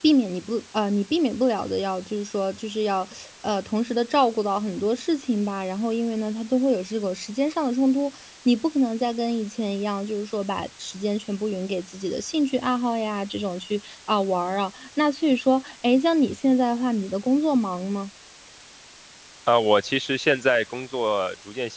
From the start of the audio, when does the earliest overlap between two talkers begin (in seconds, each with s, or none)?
none